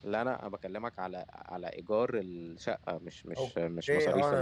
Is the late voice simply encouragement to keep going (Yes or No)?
No